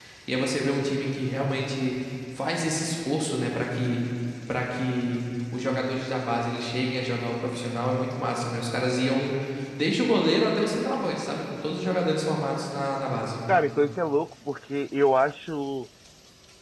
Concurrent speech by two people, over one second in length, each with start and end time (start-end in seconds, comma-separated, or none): none